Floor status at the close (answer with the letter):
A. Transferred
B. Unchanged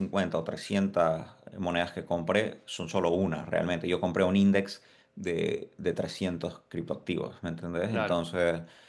B